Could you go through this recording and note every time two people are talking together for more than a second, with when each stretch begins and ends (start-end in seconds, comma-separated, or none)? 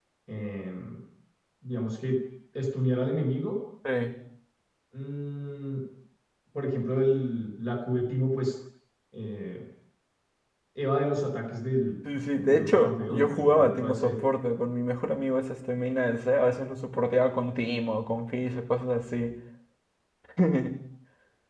12.5-14.1